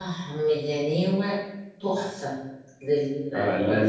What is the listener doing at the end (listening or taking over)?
taking over